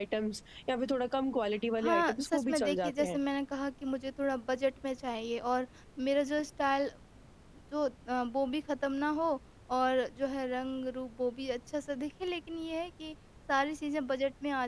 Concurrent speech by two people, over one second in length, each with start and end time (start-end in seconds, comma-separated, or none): 1.8-3.2